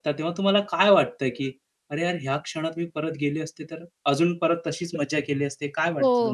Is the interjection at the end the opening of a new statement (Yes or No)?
Yes